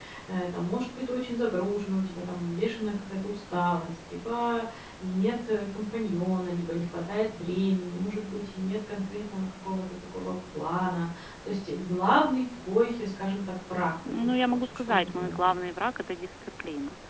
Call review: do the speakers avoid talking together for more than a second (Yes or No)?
No